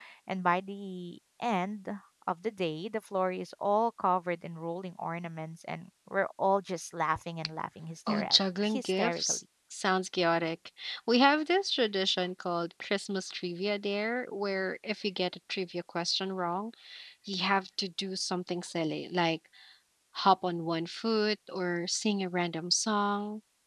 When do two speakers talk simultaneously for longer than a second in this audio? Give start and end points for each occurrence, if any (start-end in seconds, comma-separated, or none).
8.1-9.4